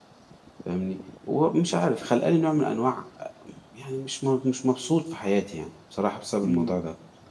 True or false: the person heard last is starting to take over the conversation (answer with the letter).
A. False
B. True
B